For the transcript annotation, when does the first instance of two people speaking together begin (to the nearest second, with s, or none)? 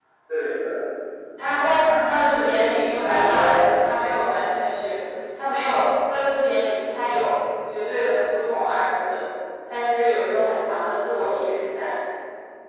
2 s